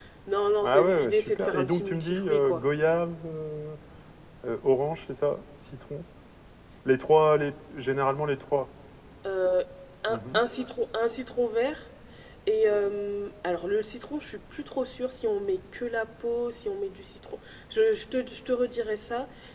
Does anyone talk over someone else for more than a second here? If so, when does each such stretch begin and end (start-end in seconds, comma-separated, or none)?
0.6-2.6